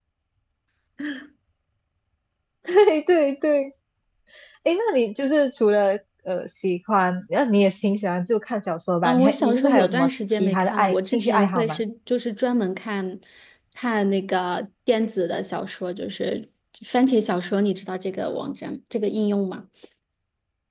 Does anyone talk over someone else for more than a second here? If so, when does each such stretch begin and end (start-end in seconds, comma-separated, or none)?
9.0-11.8